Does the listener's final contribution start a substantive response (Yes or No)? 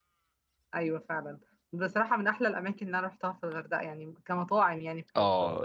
Yes